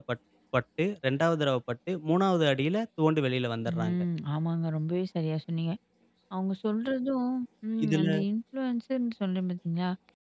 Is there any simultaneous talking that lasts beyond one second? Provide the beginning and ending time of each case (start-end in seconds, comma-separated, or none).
none